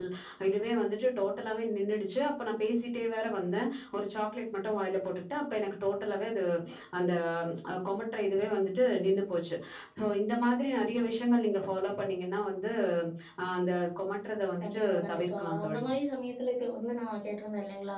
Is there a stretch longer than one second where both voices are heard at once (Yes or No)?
Yes